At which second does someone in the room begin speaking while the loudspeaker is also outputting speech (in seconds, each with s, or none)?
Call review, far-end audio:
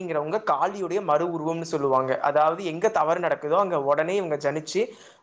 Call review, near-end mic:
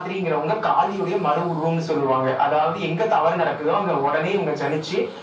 none